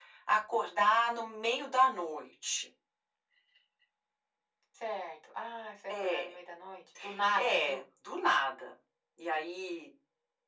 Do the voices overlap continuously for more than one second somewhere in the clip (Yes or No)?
No